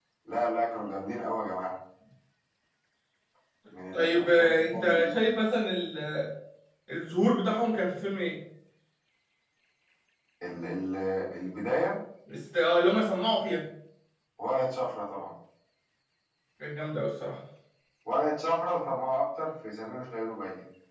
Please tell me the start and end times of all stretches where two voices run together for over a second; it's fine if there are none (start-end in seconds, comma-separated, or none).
3.9-5.2